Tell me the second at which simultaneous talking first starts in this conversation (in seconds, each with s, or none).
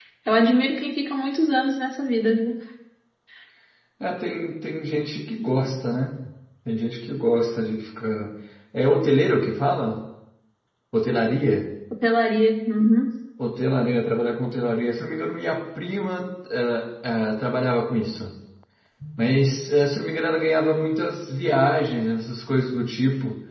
none